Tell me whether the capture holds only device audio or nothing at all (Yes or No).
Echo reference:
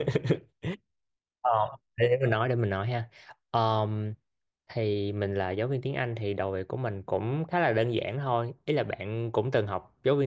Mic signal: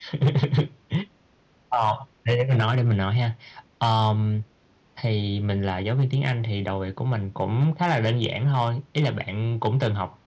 Yes